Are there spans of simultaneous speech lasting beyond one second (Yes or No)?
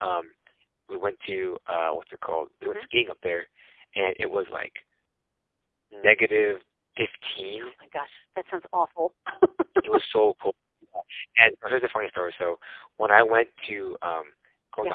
No